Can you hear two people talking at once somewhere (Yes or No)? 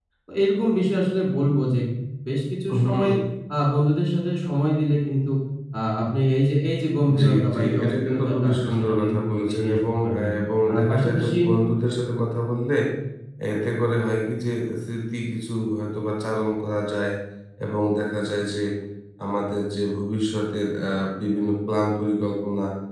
Yes